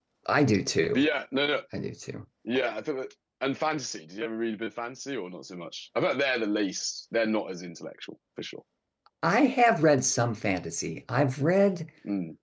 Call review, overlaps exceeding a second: none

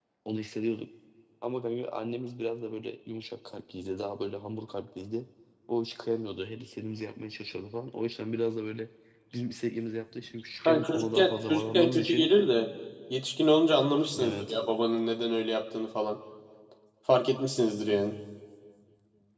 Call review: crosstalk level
present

